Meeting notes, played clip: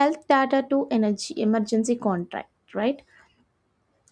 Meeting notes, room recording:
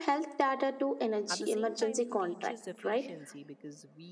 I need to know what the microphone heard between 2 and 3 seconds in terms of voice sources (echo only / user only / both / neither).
both